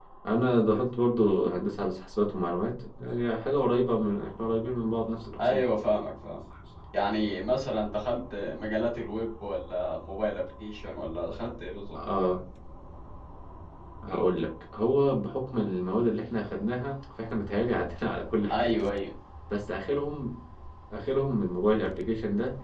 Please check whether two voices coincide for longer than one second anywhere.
No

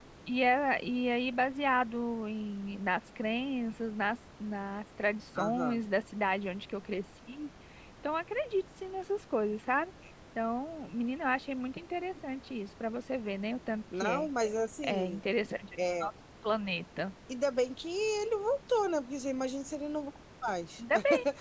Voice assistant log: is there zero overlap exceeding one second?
Yes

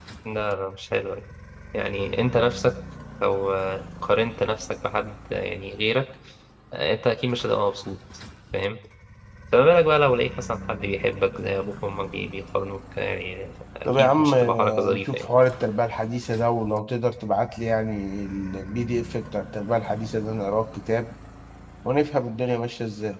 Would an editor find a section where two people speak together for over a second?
Yes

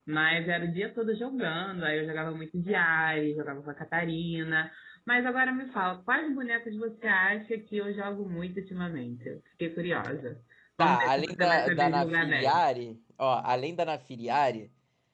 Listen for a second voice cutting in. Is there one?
Yes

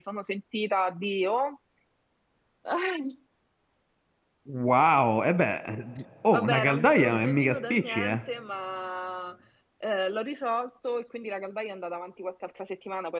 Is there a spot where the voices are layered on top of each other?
Yes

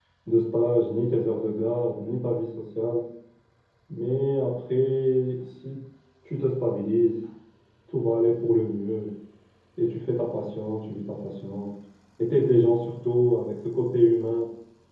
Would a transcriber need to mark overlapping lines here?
No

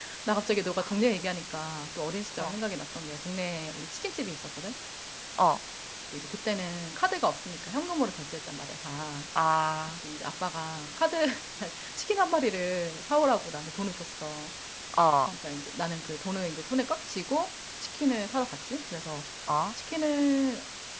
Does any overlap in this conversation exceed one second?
No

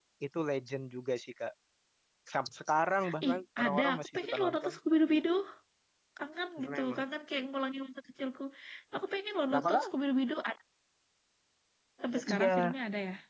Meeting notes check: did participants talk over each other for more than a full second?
Yes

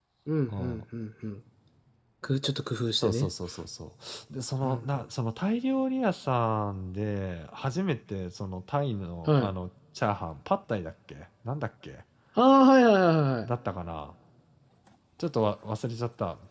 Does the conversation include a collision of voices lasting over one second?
No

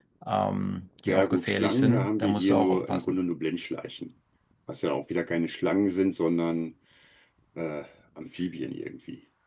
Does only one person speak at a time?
No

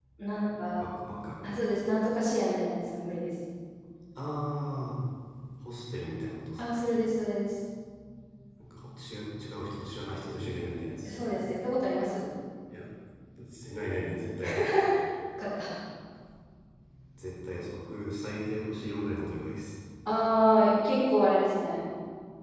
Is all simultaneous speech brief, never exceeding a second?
Yes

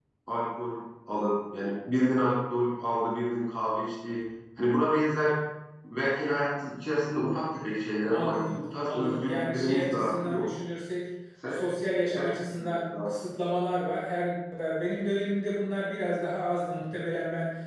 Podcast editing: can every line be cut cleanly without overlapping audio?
No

